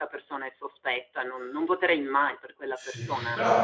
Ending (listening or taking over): taking over